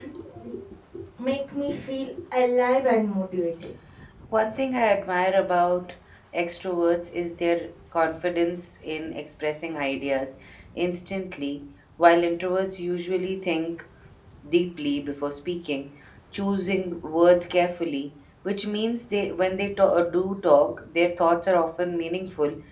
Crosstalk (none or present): none